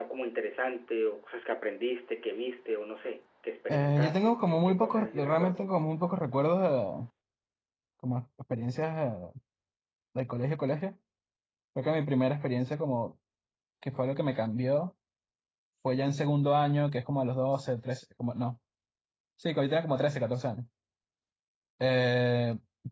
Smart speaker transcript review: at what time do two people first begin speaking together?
3.7 s

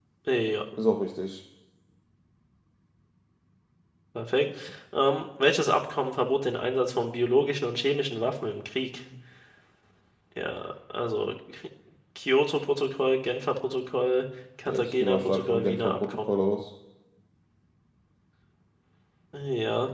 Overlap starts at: 14.7 s

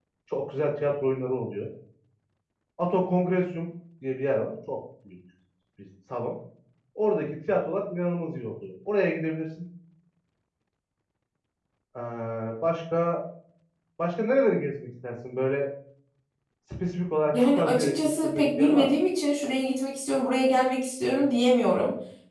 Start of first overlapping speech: 17.3 s

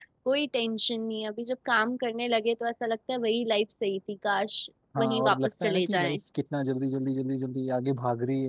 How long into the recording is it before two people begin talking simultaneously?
5.0 s

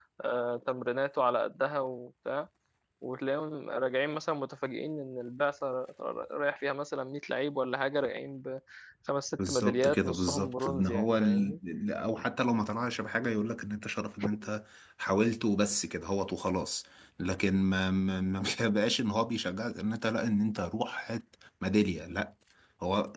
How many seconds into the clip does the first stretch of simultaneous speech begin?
9.5 s

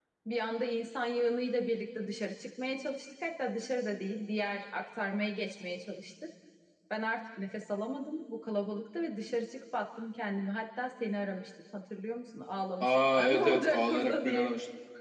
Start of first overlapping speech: 12.8 s

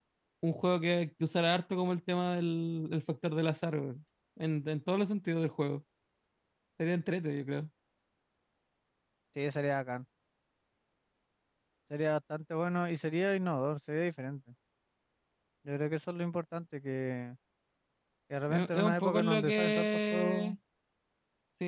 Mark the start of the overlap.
18.5 s

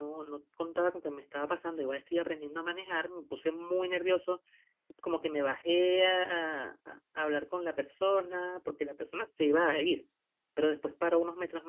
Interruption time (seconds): none

